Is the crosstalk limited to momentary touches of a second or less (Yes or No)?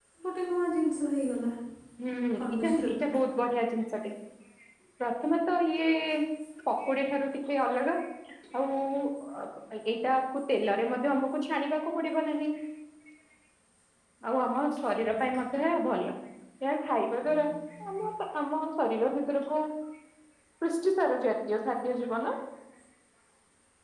Yes